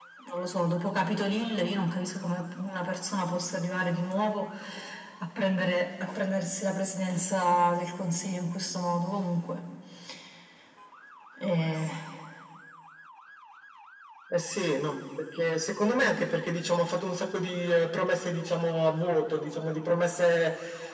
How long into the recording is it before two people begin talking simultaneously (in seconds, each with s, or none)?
none